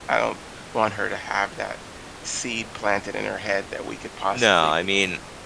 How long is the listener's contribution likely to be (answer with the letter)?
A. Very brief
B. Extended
B